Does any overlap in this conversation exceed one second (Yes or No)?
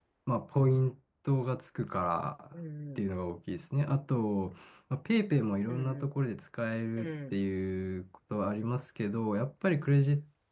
No